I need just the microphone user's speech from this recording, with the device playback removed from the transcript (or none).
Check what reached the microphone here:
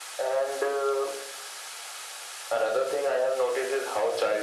none